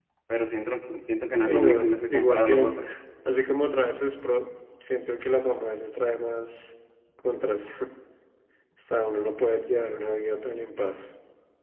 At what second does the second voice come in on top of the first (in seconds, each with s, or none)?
1.4 s